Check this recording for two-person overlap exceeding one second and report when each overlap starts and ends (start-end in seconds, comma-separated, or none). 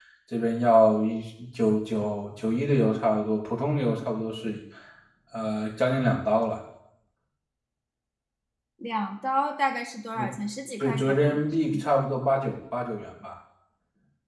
none